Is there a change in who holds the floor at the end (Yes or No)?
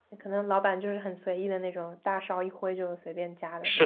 Yes